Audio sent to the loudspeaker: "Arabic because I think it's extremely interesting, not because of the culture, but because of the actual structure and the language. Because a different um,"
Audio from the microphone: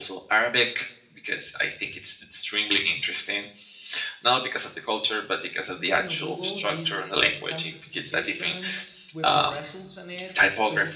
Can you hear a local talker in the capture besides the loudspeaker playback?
Yes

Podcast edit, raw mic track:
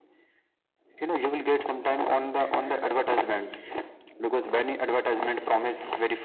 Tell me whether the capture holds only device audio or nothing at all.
Yes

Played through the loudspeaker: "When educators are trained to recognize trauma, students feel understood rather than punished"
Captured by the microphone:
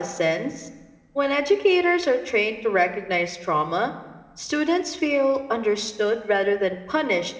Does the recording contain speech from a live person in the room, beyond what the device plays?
No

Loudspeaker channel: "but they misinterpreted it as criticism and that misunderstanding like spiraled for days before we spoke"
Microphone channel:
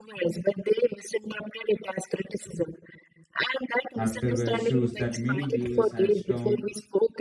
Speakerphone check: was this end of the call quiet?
No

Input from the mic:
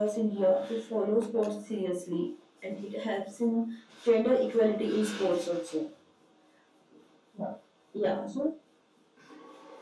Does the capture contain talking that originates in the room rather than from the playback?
No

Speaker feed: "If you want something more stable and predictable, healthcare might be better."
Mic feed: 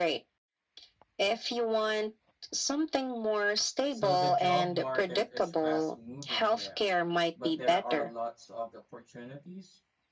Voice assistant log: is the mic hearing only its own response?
No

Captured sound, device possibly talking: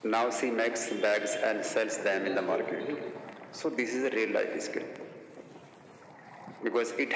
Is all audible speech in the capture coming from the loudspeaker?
No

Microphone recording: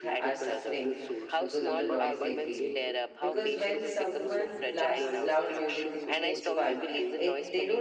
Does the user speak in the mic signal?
Yes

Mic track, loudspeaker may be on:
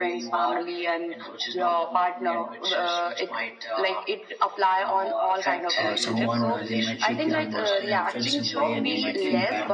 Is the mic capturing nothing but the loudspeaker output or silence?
No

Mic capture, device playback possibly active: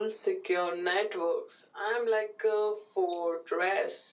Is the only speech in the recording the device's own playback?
Yes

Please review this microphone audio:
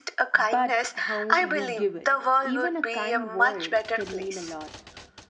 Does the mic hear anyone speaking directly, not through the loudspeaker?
Yes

